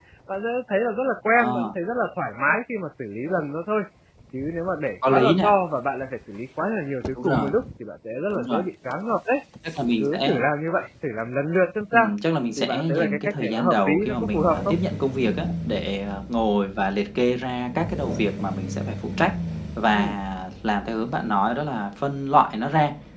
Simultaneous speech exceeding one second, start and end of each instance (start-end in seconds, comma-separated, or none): 12.6-14.7